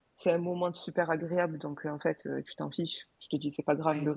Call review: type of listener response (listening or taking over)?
listening